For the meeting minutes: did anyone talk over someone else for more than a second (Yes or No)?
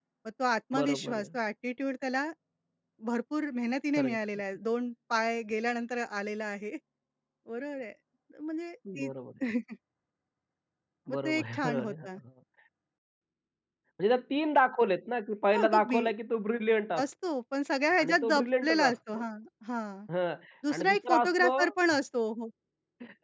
Yes